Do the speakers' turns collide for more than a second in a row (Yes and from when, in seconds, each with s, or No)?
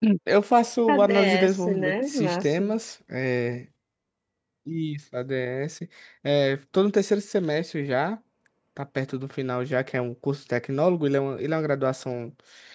Yes, from 0.9 s